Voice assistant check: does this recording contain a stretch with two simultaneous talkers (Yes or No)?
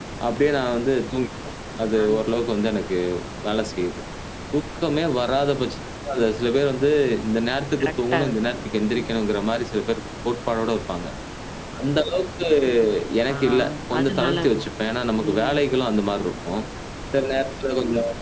Yes